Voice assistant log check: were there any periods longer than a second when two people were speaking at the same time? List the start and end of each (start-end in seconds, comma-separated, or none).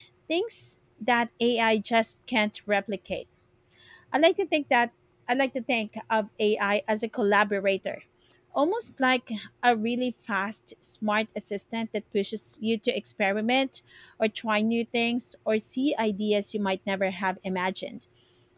none